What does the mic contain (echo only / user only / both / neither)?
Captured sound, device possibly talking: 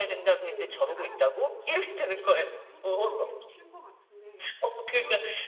both